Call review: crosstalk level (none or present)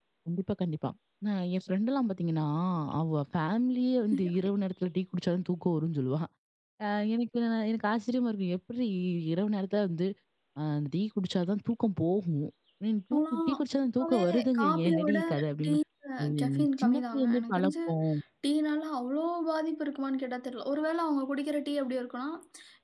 present